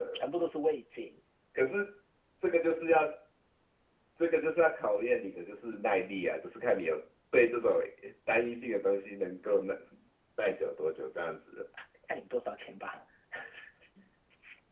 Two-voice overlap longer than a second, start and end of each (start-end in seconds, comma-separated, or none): none